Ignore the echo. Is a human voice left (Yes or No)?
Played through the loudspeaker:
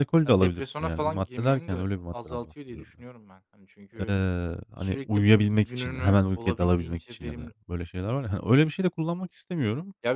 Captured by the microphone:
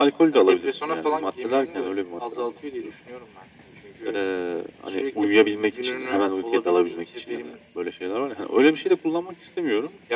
No